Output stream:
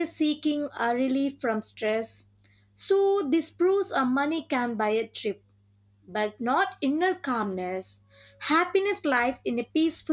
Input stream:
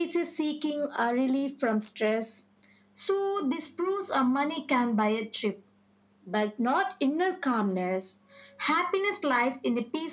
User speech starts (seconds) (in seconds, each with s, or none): none